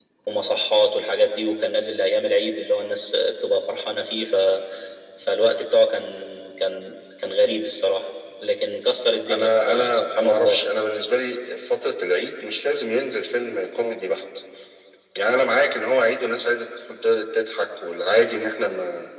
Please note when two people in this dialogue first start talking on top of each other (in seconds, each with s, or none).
9.3 s